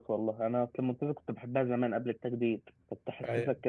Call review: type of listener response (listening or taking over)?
listening